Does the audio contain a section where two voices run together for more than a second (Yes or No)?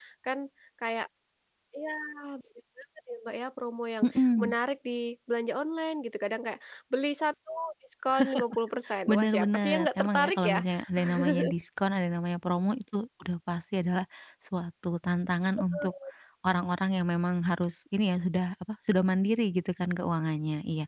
Yes